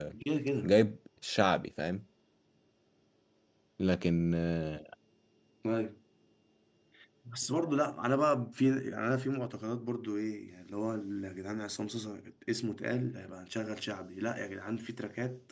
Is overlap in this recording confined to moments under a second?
Yes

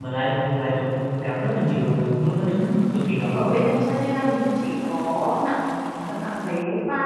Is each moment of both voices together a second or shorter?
Yes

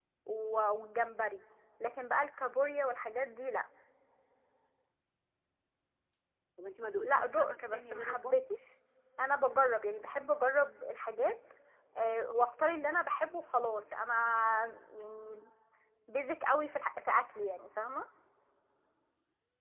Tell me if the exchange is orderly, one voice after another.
No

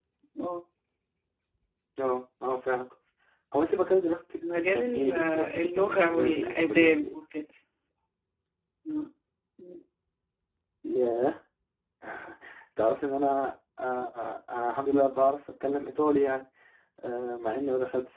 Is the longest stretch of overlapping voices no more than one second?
No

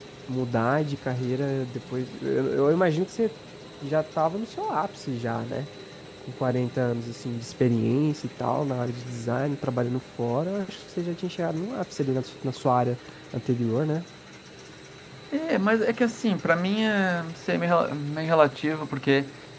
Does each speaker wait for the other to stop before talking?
Yes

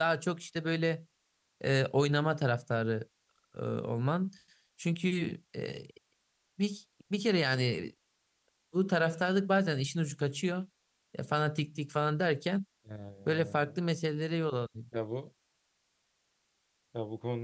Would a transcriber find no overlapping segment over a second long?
Yes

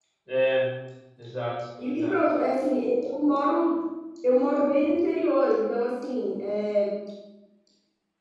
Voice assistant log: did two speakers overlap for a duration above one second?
No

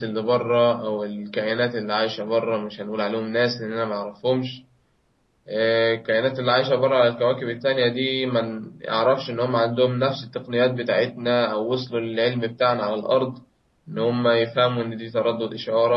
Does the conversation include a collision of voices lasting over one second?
No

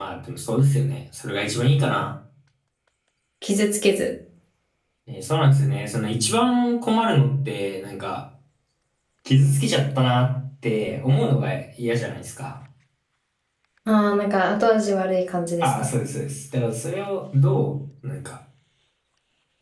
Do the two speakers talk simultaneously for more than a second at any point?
No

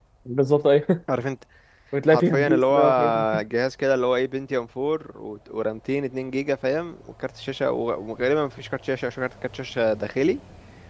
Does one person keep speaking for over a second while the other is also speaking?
Yes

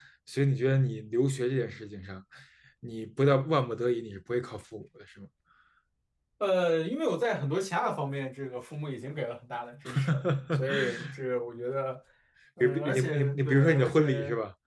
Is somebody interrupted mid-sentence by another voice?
Yes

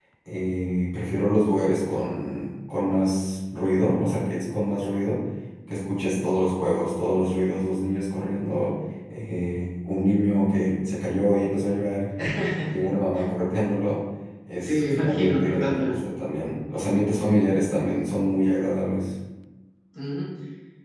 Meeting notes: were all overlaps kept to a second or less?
No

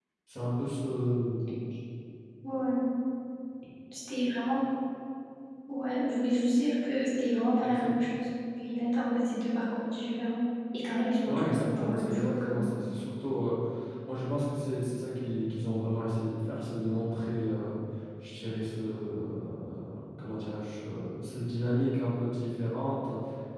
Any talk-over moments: Yes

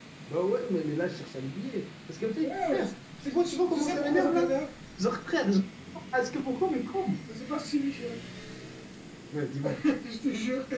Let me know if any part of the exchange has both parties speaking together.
Yes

